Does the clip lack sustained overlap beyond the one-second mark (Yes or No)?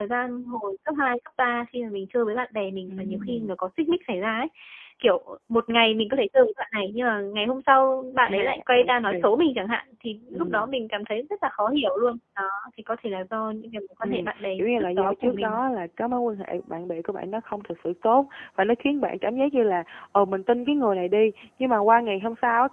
No